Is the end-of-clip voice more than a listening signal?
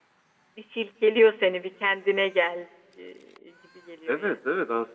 Yes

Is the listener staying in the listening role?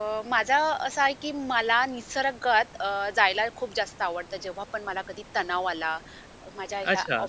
No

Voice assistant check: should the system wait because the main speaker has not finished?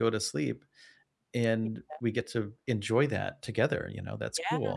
No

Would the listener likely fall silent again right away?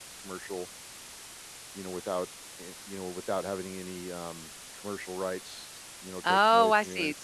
No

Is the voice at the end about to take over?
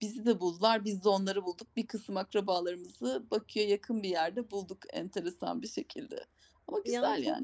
Yes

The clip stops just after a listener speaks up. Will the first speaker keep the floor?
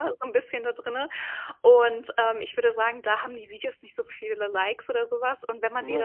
Yes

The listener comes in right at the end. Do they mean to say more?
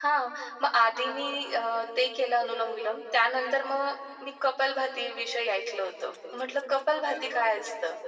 No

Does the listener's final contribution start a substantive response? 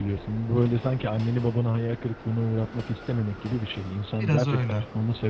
No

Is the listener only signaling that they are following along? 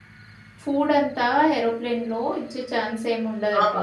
No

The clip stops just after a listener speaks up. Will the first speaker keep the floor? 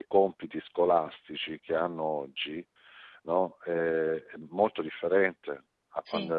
Yes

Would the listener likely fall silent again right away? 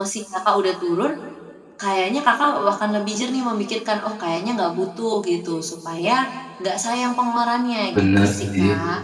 No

